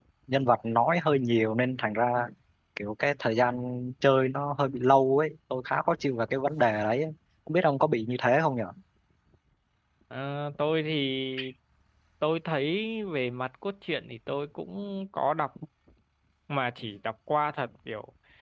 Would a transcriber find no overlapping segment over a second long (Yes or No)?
Yes